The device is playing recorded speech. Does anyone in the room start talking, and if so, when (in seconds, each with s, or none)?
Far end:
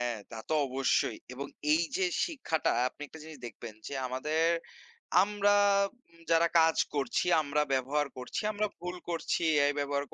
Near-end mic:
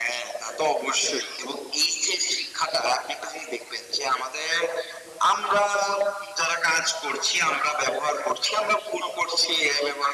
none